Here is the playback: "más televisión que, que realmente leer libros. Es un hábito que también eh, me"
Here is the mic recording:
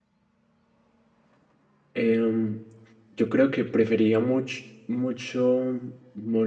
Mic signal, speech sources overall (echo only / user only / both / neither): user only